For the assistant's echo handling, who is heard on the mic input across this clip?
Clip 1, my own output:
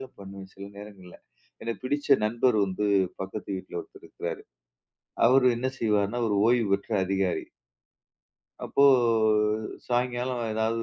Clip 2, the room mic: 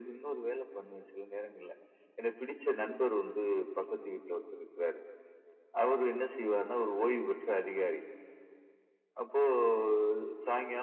echo only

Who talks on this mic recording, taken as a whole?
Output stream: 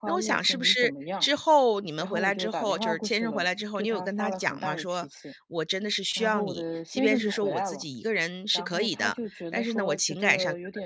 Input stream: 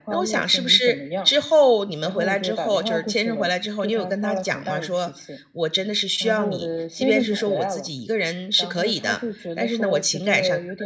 echo only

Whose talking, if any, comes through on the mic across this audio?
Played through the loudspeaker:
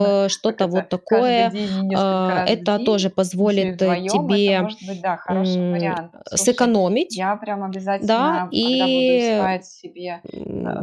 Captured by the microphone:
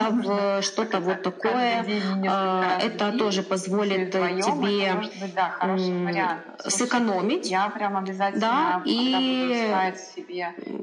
echo only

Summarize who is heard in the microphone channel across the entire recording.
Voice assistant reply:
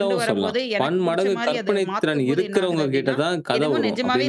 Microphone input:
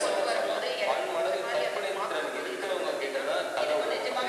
echo only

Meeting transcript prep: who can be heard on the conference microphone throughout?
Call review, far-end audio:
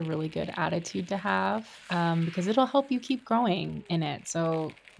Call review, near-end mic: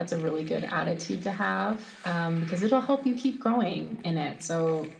echo only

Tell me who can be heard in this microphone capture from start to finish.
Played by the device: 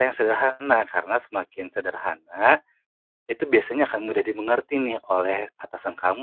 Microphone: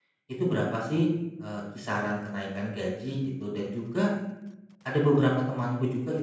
user only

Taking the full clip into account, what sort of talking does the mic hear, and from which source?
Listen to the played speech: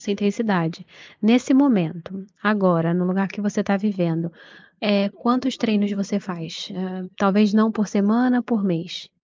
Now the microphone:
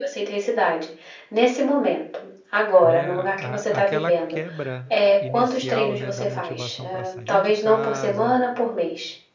both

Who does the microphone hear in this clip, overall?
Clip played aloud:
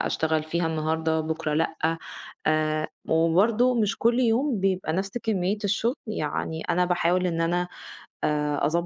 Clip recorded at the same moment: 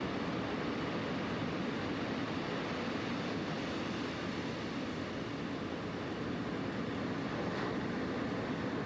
neither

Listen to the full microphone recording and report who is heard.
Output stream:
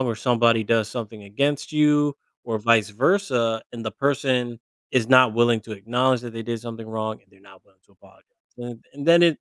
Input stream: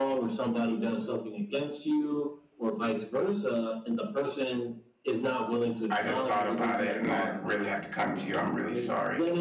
both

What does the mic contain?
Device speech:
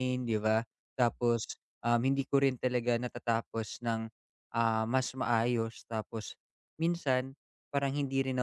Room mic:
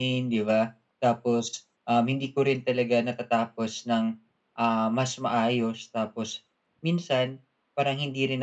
echo only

